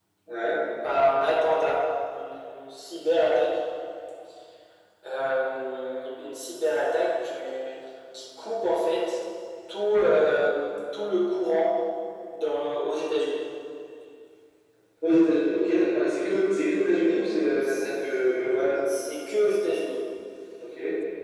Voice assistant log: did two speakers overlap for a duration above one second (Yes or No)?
No